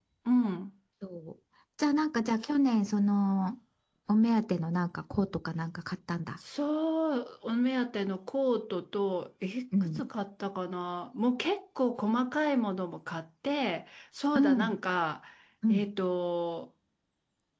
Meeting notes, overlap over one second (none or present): none